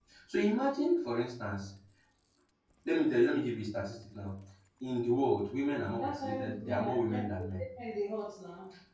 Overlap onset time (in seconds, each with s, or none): 6.0 s